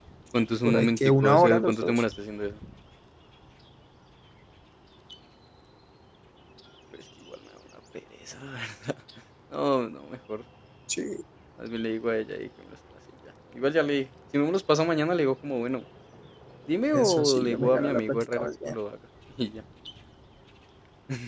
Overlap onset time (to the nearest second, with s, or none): 1 s